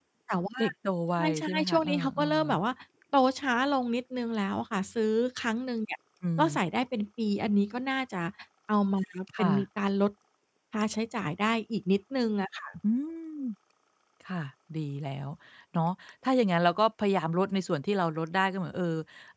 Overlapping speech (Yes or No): Yes